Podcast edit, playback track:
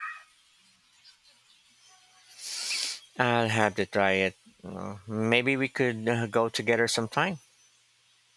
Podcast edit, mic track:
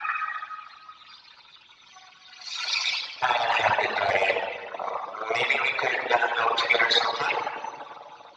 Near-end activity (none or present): none